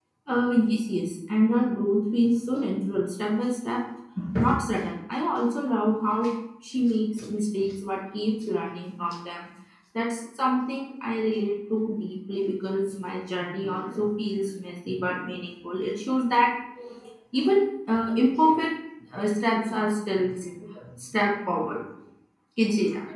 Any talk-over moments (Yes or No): No